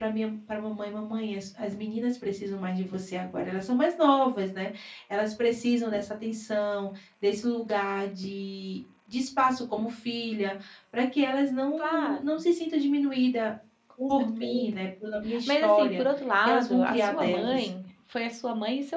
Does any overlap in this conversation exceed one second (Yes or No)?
Yes